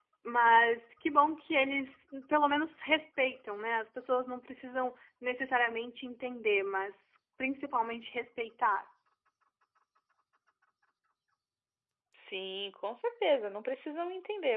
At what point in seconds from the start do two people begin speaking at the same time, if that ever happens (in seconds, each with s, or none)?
none